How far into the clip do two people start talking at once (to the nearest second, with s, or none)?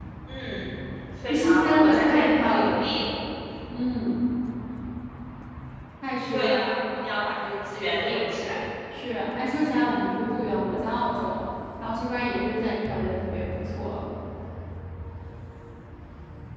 1 s